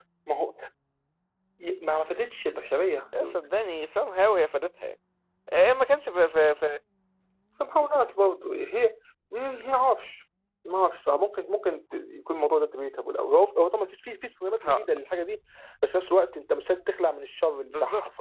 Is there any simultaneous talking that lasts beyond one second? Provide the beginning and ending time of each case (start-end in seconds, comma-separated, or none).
none